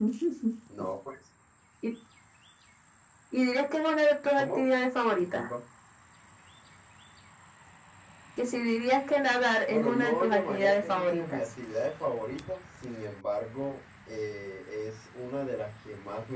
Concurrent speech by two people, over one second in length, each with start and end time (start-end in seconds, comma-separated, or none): 9.7-11.4